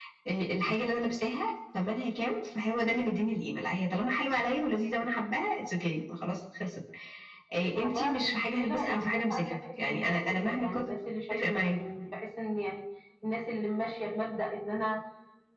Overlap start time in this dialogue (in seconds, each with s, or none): 7.8 s